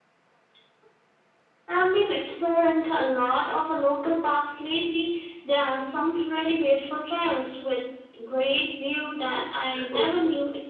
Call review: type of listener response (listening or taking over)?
taking over